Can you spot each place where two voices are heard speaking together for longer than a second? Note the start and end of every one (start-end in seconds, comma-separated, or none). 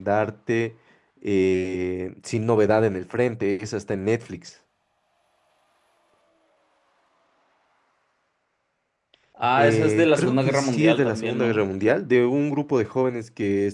9.5-11.7